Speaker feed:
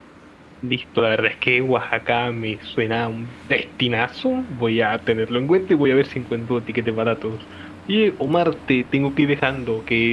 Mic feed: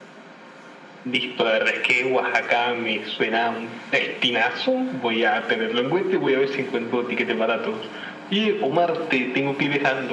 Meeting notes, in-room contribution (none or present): none